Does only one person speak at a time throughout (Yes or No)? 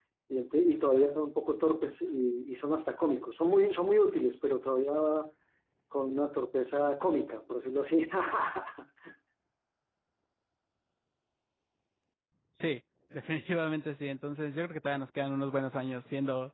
Yes